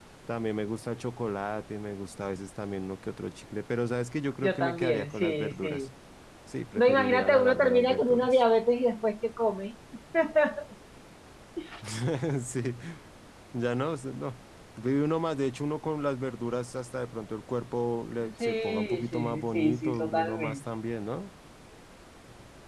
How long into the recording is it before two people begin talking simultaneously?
4.4 s

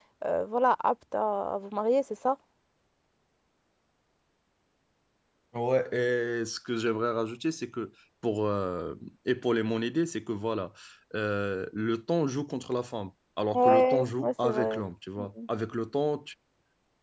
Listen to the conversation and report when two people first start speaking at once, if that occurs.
13.5 s

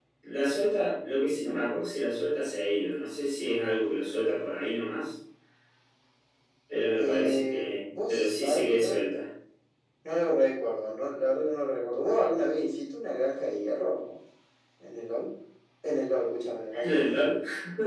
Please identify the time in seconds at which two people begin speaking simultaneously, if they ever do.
7.0 s

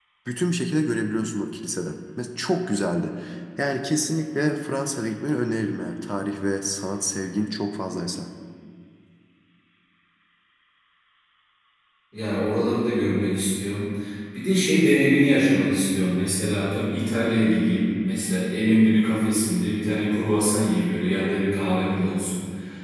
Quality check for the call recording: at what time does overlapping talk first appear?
none

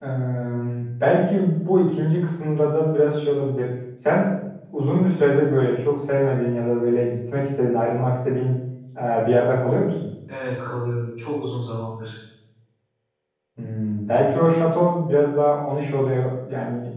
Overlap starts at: none

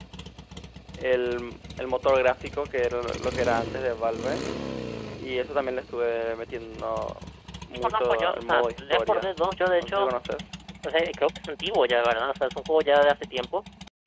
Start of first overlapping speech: 7.8 s

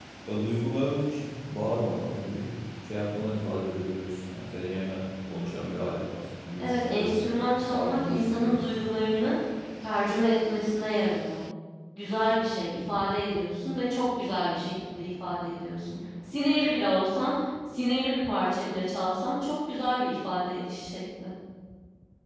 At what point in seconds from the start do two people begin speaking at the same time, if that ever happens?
6.6 s

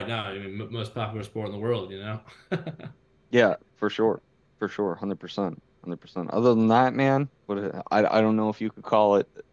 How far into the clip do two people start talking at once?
none

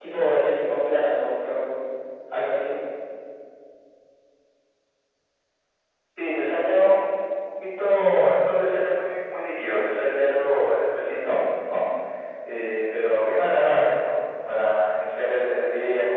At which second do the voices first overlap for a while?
none

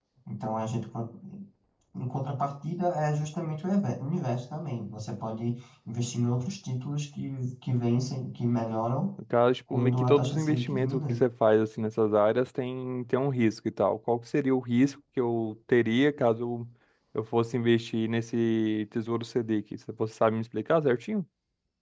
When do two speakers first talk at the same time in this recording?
9.7 s

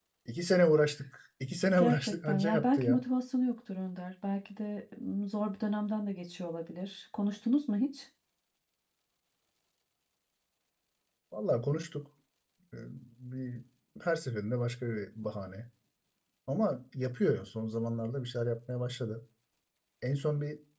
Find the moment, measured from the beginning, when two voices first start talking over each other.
1.8 s

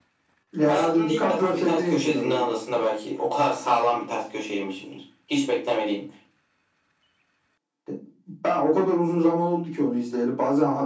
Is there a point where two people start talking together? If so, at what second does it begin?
0.7 s

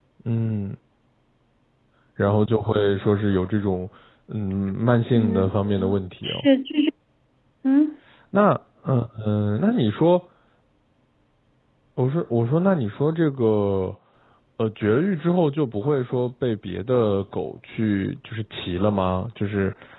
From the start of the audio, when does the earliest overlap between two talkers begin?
5.1 s

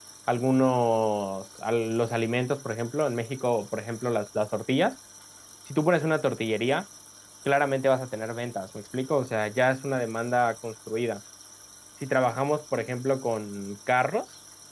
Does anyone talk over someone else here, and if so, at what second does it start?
none

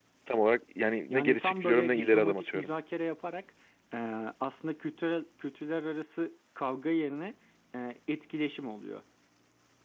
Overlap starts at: 1.1 s

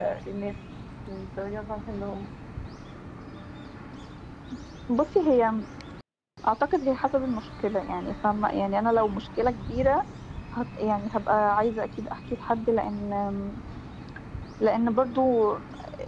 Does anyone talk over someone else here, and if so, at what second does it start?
none

